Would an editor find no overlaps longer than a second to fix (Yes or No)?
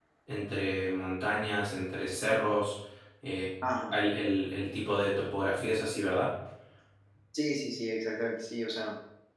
Yes